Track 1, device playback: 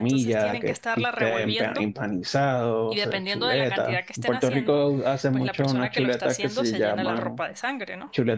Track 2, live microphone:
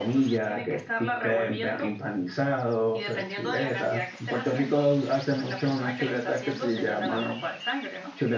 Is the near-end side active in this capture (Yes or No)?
No